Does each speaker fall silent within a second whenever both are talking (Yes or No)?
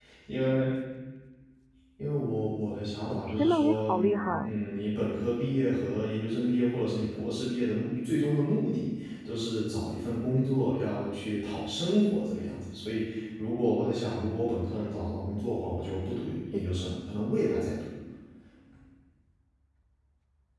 No